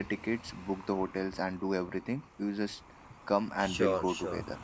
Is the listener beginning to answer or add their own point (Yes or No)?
Yes